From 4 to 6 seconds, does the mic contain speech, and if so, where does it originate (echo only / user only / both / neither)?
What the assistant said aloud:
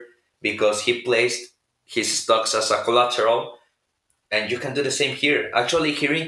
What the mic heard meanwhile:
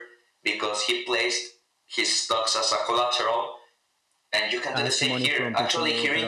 both